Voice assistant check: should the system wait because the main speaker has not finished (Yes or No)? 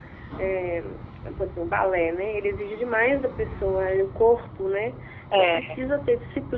Yes